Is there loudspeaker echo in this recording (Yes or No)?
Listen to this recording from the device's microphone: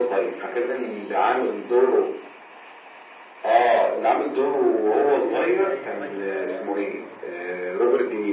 Yes